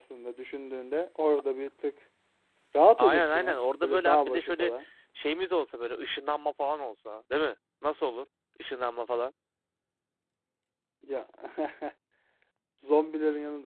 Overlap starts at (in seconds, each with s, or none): 3.0 s